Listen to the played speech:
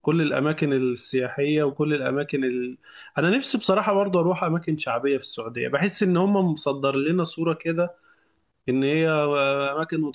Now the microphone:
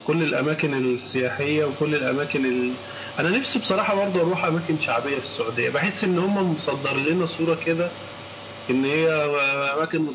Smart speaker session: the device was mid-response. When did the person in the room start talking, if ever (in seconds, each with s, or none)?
none